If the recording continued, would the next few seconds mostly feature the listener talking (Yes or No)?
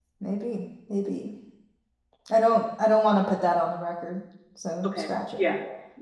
Yes